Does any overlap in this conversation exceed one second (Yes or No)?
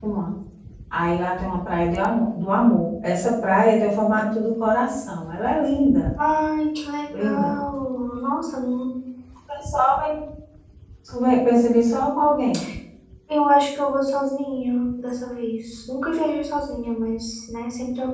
No